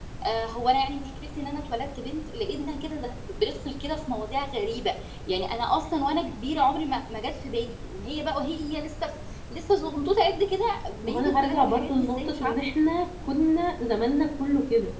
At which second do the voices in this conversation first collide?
11.0 s

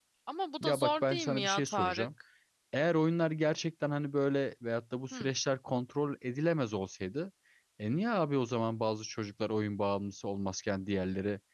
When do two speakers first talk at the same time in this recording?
0.6 s

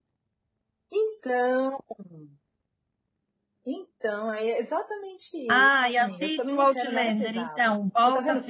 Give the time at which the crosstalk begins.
5.5 s

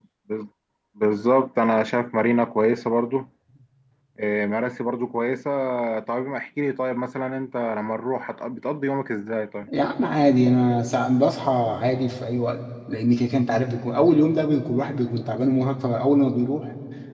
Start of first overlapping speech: none

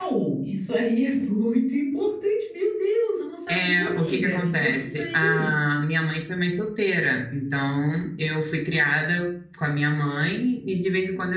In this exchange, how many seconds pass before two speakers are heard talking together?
3.5 s

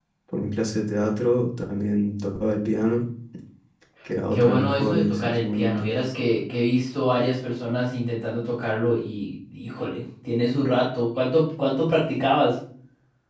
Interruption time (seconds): 4.3 s

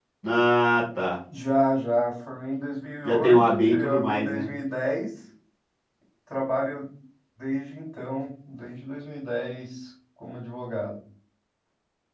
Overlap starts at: 3.0 s

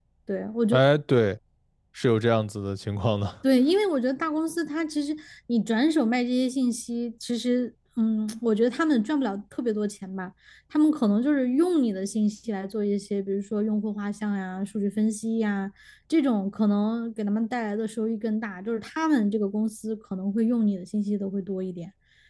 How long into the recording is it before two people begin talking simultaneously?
none

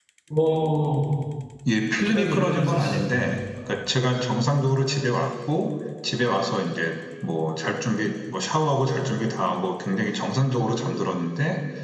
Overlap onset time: 2.0 s

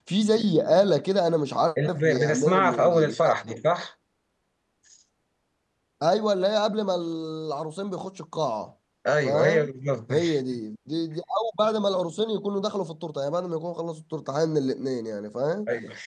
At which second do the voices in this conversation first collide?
1.9 s

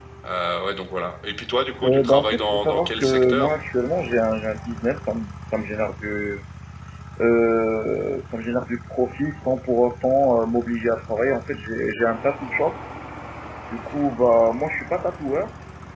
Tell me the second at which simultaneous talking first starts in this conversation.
1.8 s

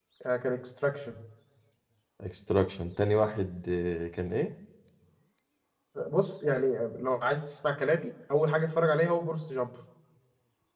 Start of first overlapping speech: none

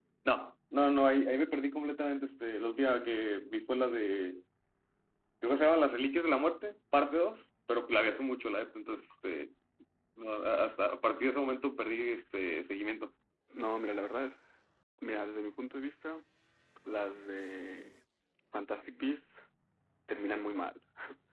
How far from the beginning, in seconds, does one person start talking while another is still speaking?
none

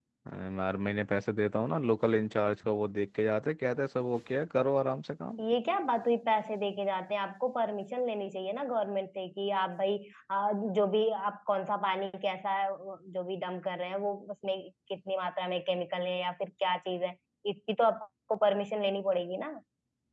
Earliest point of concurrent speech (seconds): none

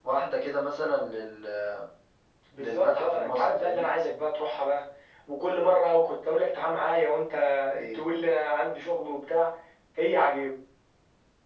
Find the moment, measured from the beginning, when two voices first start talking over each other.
2.6 s

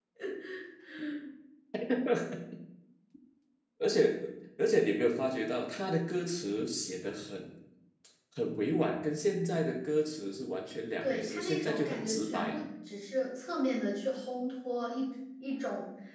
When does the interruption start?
11.0 s

